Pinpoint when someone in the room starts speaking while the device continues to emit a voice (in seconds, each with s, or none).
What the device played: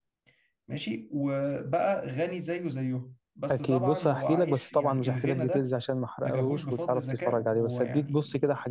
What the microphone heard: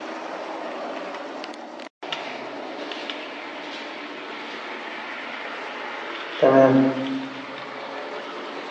6.4 s